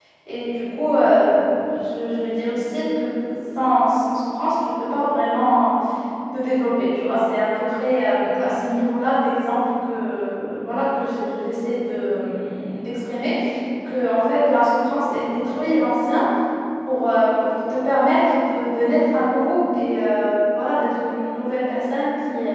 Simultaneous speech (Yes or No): No